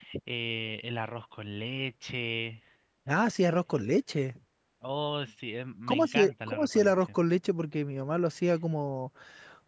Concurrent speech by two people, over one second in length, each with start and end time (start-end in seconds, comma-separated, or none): 5.9-7.2